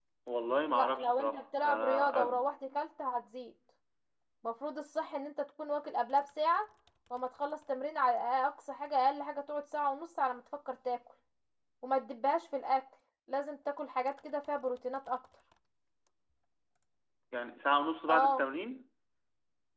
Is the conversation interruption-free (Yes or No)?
No